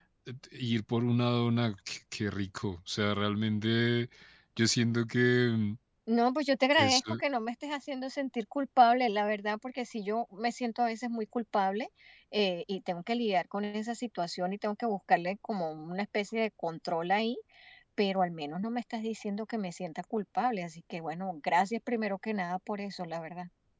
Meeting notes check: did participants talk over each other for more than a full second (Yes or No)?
No